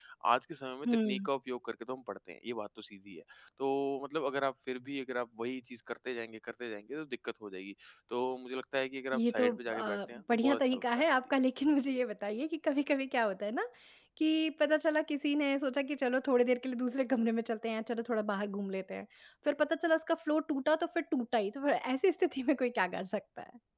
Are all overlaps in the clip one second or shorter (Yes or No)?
No